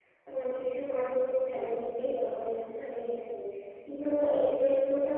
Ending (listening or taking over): listening